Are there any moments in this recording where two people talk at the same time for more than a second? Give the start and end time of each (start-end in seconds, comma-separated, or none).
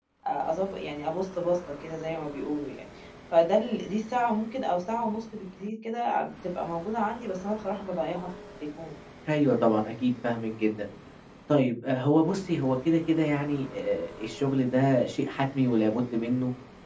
none